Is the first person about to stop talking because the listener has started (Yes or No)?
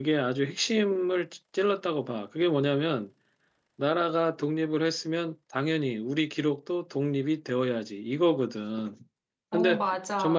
No